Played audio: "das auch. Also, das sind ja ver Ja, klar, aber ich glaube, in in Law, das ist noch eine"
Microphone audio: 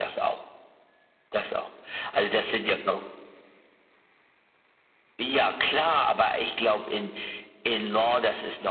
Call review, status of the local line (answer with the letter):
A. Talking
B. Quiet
B